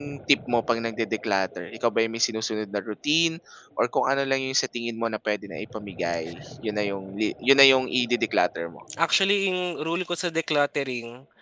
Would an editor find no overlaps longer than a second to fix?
Yes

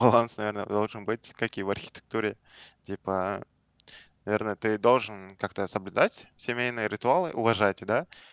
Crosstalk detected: No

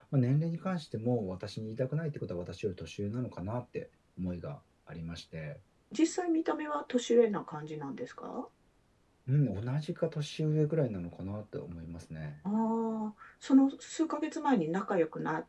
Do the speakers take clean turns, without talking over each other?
Yes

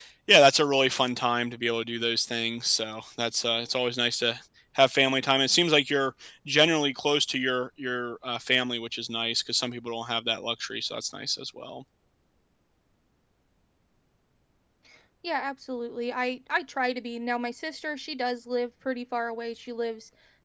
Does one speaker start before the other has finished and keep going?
No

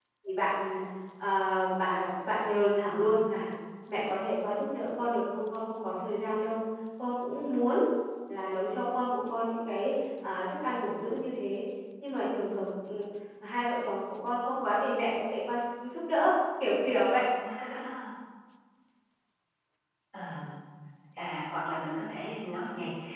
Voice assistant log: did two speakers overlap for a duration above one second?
No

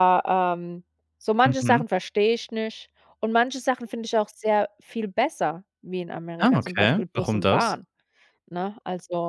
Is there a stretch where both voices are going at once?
Yes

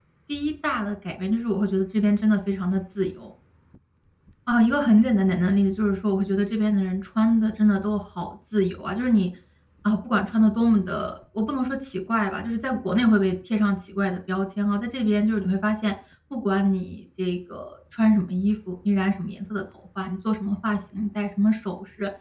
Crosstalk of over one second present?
No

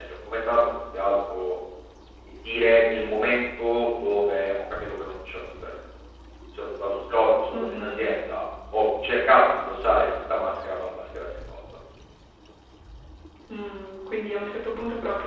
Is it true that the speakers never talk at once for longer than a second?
Yes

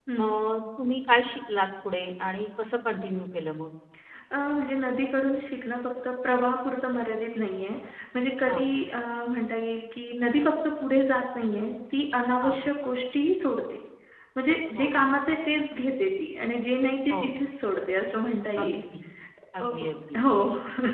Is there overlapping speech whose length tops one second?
No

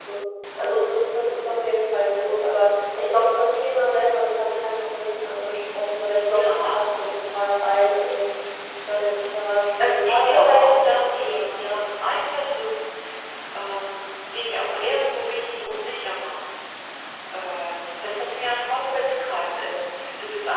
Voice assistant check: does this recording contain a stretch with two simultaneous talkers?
Yes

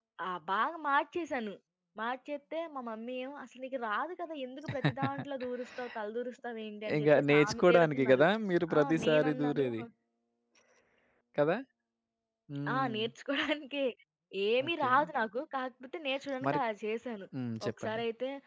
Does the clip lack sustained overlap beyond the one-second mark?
No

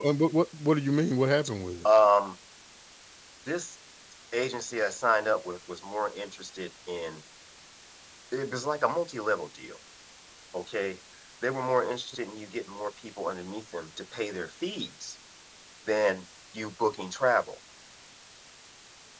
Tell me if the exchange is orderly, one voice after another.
Yes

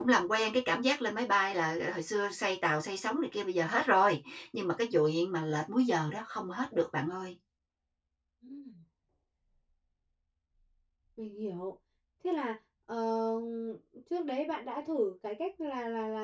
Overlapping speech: No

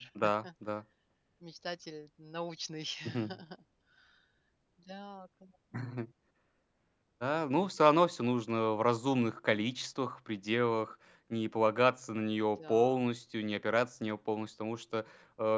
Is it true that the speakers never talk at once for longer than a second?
Yes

